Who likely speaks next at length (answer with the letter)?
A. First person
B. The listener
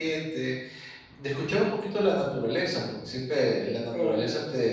A